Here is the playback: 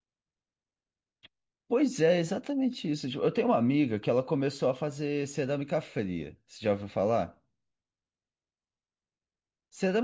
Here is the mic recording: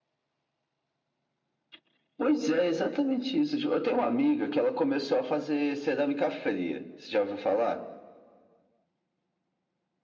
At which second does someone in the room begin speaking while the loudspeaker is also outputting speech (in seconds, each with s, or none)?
none